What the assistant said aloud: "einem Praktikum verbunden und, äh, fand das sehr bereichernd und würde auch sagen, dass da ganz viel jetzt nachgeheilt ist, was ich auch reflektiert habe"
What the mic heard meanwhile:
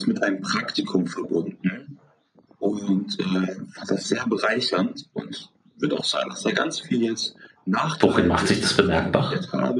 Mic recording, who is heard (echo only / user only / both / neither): both